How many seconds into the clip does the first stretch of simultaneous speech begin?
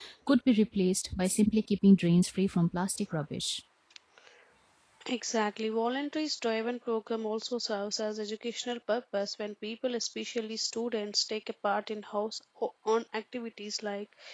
none

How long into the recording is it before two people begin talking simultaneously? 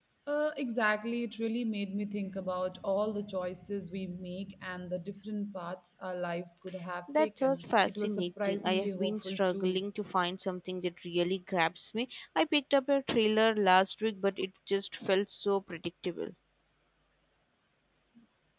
7 s

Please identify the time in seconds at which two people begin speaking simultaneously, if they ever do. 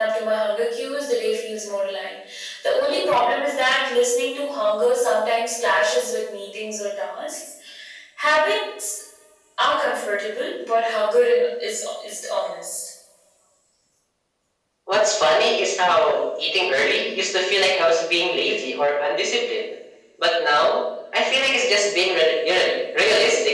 none

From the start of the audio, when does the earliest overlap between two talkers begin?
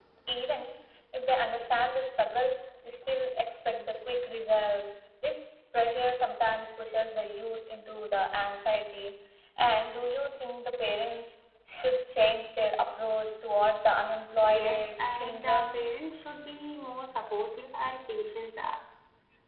14 s

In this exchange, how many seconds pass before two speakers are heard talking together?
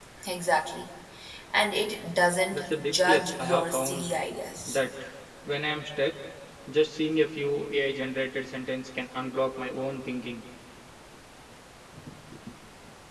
3 s

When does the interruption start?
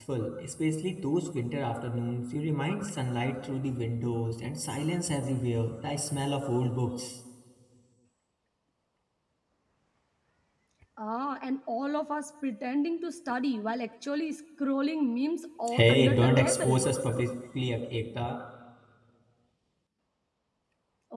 16 s

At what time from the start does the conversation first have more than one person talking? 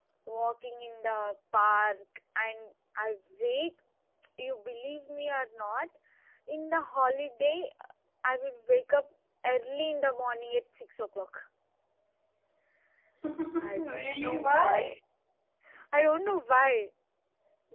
14 s

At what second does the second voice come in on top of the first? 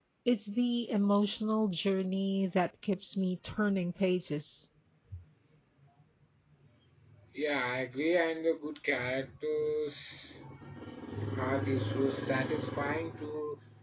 none

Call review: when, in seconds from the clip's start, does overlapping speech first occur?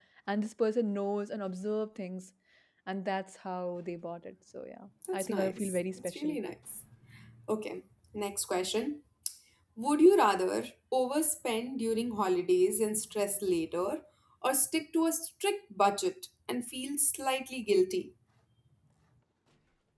5 s

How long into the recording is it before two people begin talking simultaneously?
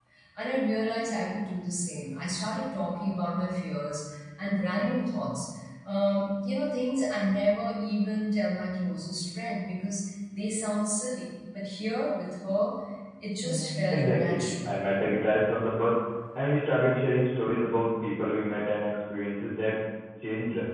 13 s

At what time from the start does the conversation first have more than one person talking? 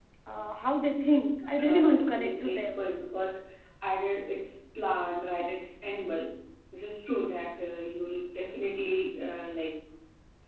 2 s

